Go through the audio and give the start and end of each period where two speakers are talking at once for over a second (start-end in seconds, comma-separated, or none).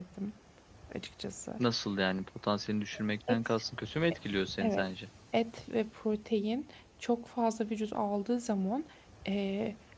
none